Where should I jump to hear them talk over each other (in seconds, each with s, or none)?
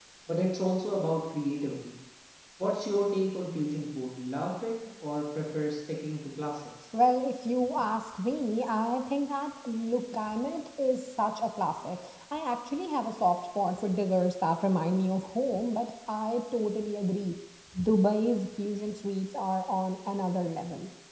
none